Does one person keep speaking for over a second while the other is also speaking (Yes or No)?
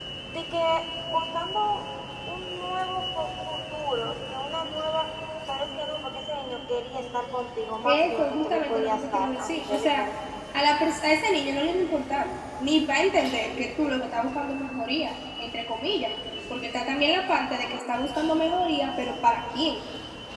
Yes